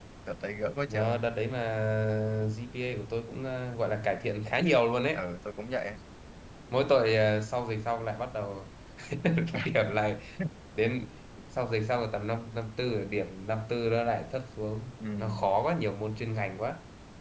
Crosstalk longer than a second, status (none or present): none